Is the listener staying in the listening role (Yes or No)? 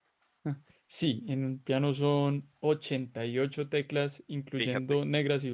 Yes